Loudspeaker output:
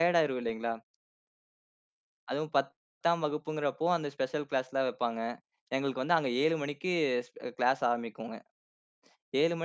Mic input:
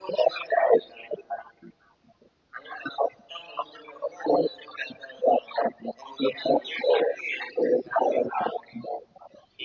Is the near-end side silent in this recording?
Yes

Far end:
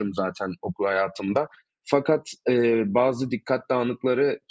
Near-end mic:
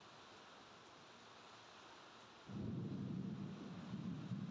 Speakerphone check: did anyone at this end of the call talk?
No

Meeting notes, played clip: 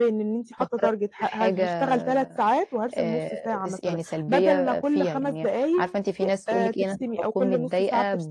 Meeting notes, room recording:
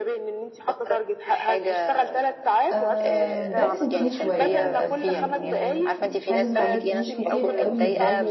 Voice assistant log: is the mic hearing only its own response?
No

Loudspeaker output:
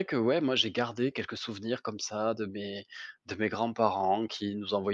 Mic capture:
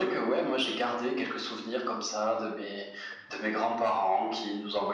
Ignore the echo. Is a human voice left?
No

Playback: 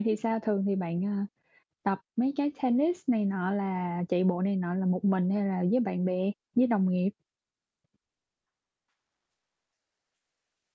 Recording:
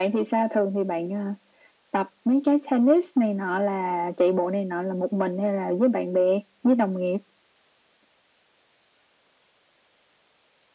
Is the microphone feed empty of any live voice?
Yes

